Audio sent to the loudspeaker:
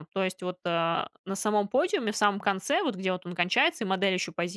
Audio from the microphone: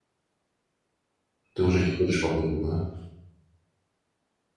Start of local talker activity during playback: 2 s

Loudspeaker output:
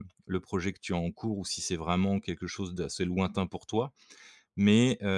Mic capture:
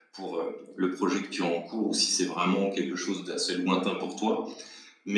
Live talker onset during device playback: none

